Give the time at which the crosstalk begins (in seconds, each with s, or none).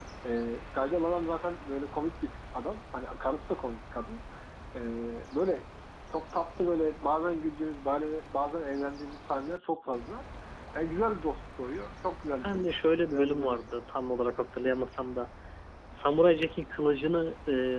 12.4 s